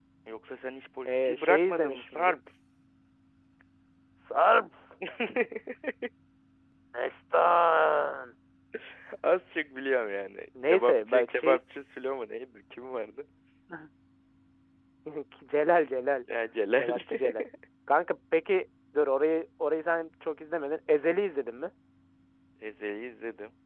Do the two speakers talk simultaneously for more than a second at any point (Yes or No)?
Yes